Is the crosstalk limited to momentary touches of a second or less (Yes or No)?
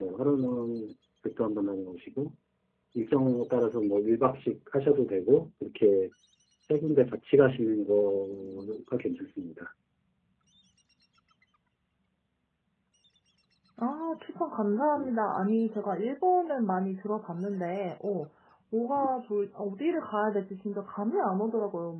Yes